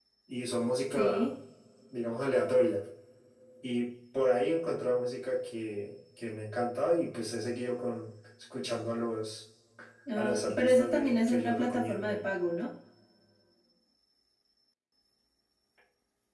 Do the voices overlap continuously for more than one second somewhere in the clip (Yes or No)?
Yes